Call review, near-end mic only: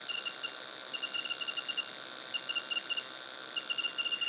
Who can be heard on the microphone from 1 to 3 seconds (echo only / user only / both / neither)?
neither